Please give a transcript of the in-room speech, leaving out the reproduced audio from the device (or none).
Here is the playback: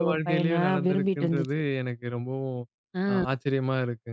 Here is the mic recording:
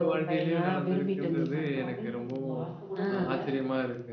இது பண்றோம் அப்படின்னு சொ வார்த்தை கூட விடல.